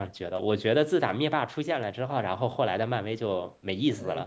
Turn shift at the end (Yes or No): Yes